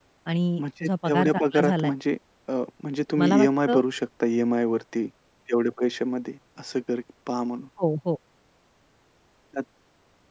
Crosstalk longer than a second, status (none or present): present